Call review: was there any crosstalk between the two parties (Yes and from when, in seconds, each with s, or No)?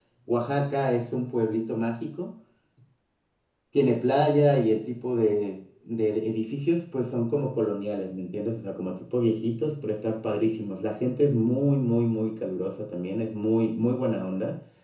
No